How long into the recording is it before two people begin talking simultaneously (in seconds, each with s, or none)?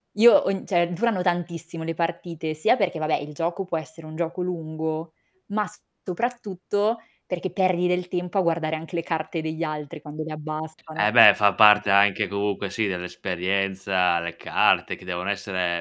none